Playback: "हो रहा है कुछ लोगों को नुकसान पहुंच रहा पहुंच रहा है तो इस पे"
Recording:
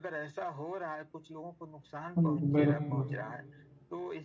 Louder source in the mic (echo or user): user